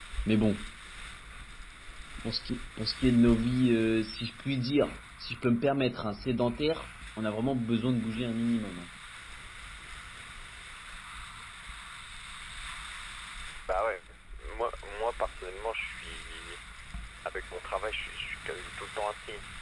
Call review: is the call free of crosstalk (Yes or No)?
Yes